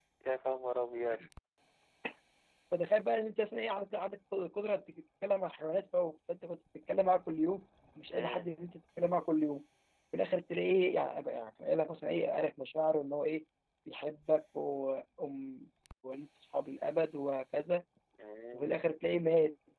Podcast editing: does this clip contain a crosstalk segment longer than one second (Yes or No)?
No